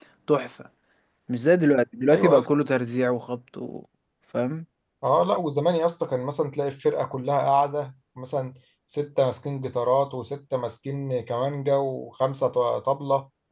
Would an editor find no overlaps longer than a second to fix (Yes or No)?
Yes